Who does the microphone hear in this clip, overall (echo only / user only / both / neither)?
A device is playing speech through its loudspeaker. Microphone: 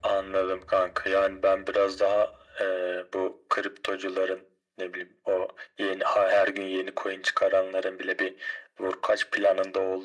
echo only